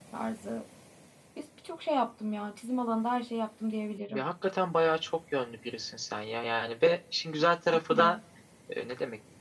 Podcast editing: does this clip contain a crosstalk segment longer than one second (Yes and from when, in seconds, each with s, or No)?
No